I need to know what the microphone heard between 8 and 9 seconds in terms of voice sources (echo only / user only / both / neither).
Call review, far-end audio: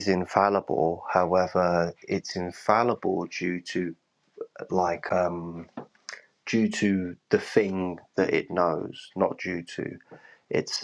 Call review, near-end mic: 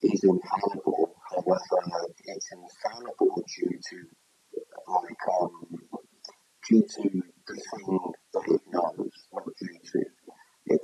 echo only